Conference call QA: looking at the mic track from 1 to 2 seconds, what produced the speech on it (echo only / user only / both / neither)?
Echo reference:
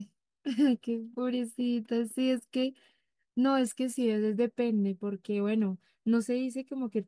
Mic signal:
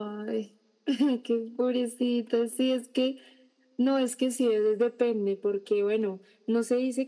echo only